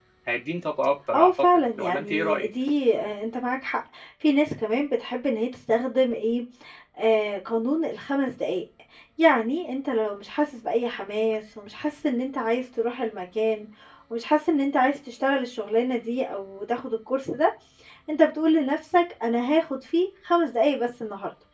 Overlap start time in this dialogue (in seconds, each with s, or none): 1.1 s